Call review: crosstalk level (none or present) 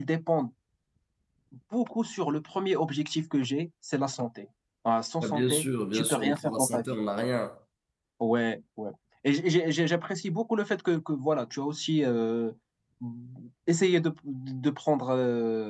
present